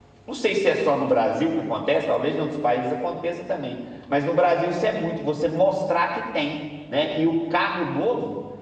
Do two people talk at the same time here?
No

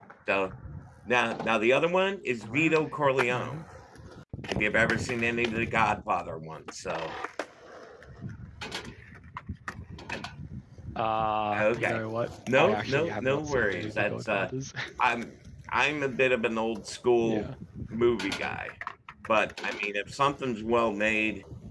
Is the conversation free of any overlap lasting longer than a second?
No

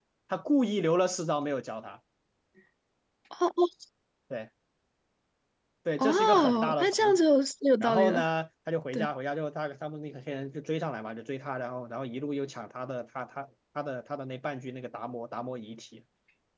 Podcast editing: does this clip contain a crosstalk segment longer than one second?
Yes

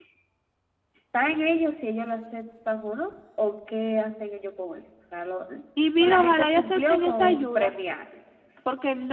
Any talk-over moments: Yes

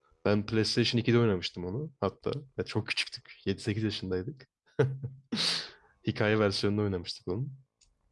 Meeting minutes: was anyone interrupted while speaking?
No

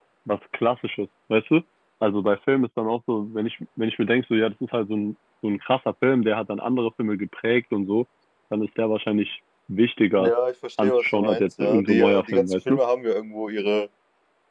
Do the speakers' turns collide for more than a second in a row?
Yes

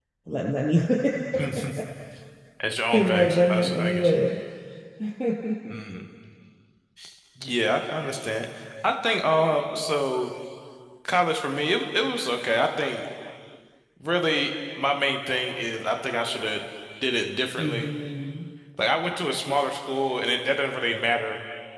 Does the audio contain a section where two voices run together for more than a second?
Yes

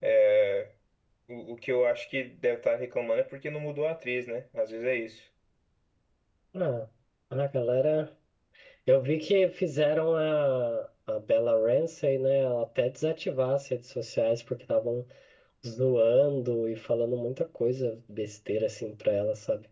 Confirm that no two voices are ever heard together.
Yes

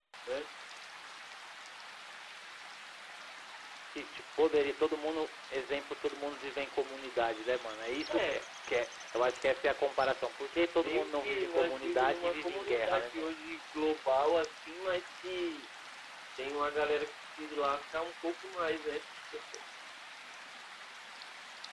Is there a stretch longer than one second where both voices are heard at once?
Yes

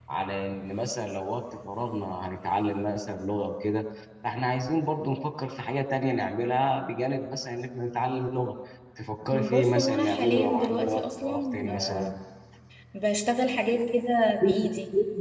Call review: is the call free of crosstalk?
No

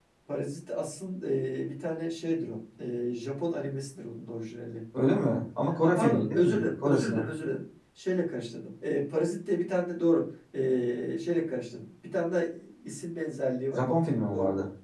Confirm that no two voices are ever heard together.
No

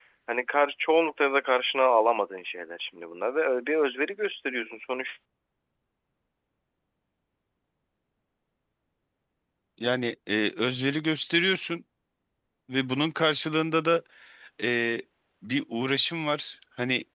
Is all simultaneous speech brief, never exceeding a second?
Yes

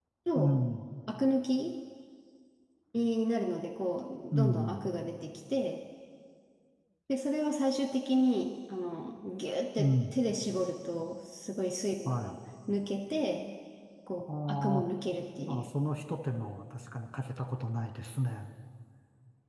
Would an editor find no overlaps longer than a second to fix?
Yes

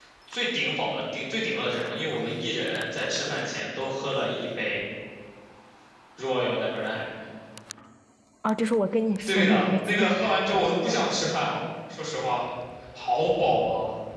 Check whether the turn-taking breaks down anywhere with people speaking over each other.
Yes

